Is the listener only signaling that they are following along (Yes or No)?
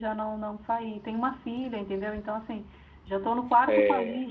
Yes